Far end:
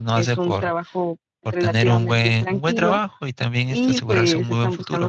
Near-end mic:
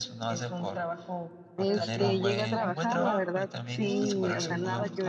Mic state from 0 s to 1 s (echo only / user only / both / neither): echo only